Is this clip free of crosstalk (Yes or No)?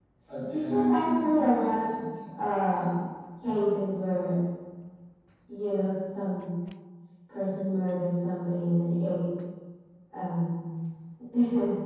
No